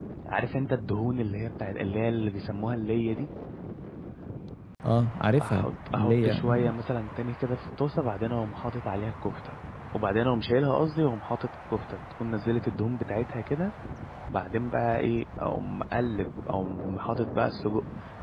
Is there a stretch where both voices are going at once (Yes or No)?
Yes